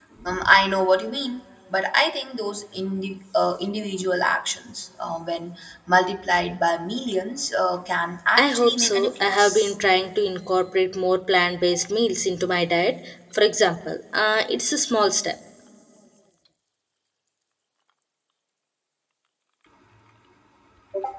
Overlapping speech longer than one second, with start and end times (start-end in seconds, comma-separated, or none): 8.4-9.7